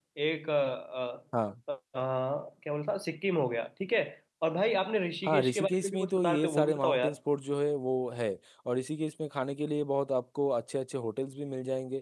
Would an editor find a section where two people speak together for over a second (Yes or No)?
Yes